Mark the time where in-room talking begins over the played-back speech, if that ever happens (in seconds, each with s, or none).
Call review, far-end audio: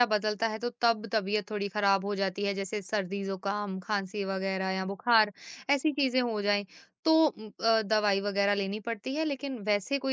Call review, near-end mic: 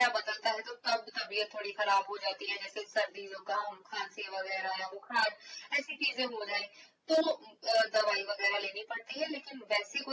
none